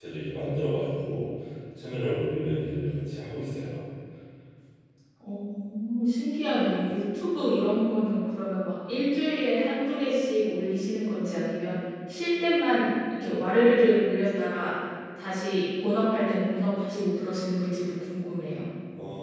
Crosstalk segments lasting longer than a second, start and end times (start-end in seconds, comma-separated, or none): none